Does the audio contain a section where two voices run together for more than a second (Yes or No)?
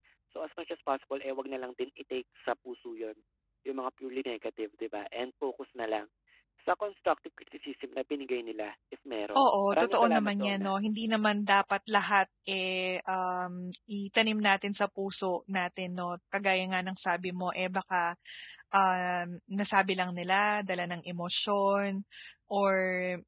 Yes